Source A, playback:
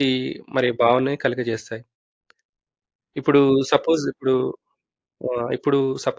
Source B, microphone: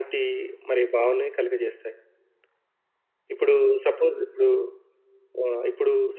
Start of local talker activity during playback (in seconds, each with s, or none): none